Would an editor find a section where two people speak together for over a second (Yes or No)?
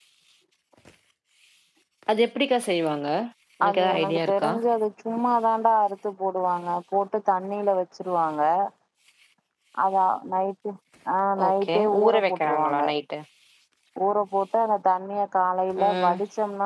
Yes